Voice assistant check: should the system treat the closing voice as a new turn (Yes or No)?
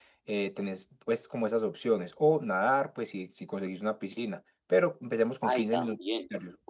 Yes